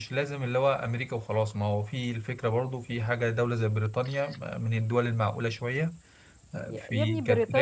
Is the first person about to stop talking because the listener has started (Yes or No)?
Yes